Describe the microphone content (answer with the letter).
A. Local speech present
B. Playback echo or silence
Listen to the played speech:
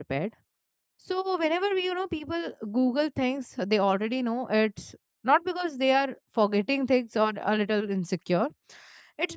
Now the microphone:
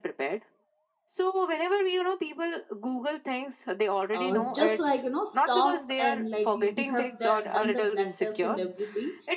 A